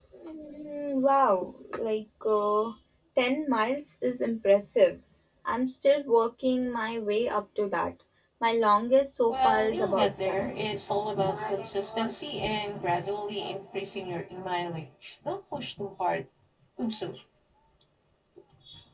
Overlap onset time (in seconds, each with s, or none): 9.3 s